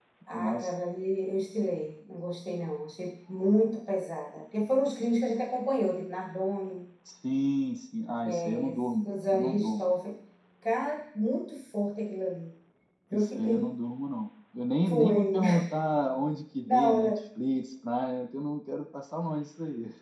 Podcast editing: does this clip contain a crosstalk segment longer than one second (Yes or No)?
Yes